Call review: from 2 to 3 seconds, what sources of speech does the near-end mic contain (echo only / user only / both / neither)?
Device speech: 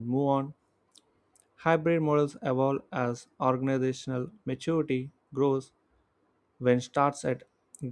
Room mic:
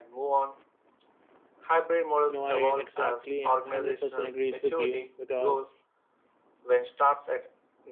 both